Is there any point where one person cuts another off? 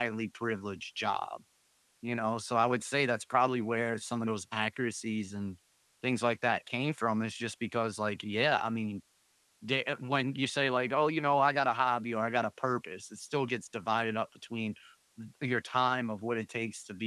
No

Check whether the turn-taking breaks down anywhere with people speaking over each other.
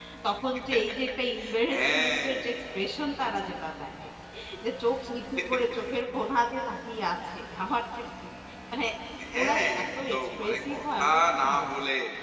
Yes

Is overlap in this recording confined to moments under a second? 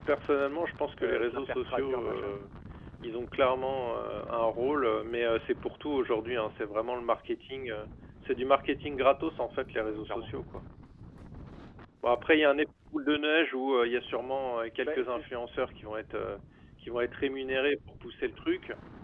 No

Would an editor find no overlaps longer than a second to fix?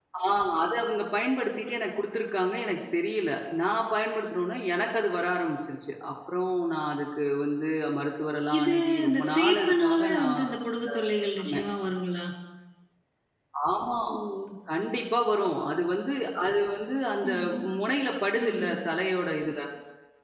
No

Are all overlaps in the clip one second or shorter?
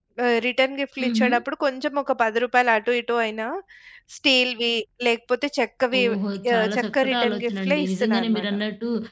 No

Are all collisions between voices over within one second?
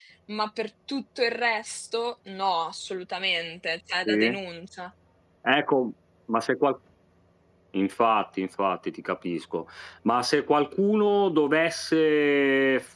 Yes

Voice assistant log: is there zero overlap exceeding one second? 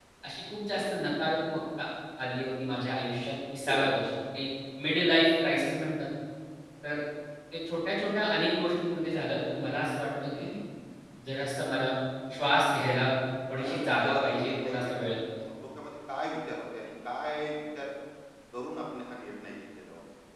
No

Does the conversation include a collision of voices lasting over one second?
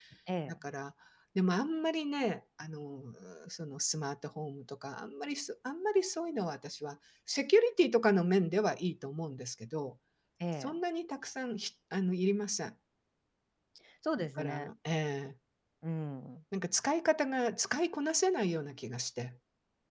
No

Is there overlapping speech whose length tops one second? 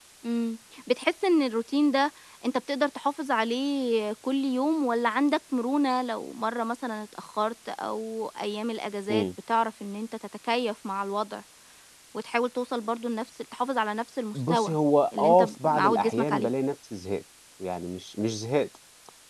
Yes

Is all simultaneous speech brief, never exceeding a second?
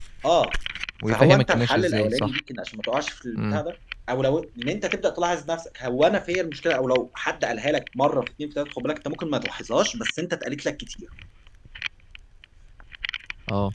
No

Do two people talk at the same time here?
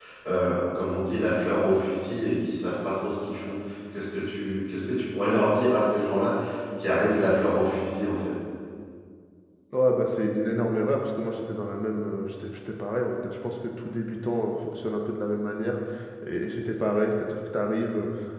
No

